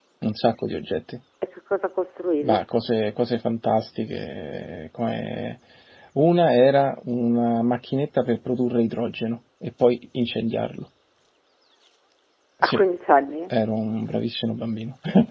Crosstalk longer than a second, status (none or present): none